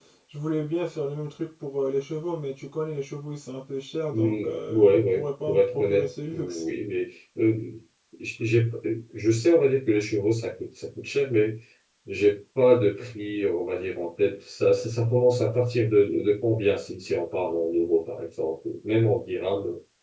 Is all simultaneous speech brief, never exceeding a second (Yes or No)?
No